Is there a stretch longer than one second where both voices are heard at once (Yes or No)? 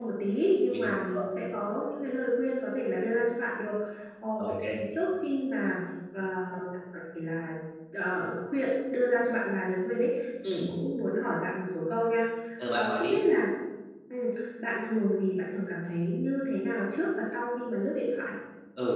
No